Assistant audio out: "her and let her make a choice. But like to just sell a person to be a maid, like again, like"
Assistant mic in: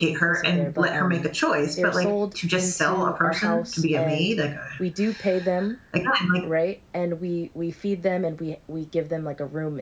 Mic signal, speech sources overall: both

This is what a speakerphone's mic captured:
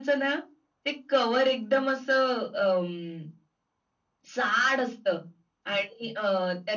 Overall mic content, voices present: echo only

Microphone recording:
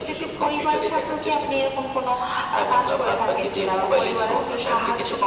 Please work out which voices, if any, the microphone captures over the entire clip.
echo only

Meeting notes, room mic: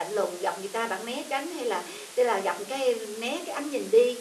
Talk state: user only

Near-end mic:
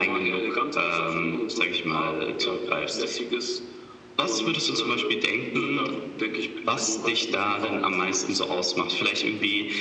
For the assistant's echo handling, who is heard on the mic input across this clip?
both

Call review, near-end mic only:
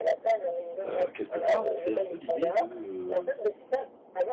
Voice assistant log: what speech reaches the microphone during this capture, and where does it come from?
both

